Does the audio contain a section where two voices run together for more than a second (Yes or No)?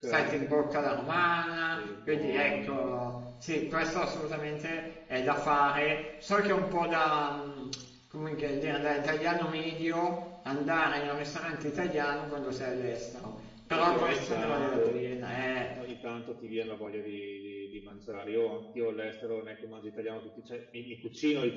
Yes